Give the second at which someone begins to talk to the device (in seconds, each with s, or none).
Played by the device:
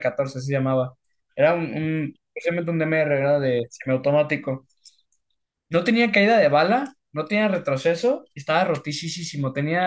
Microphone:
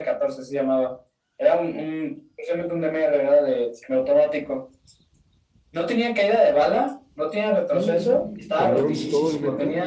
7.7 s